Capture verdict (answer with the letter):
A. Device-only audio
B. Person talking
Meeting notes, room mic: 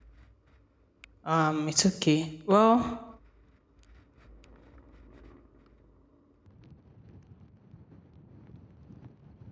B